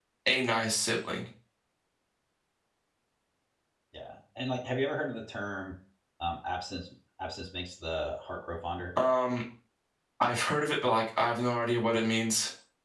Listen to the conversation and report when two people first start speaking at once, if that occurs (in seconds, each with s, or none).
none